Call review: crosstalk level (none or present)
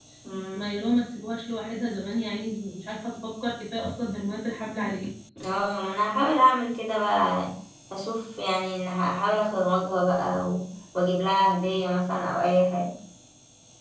none